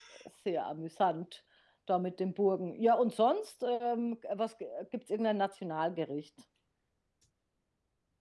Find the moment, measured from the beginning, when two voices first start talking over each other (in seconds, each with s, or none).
none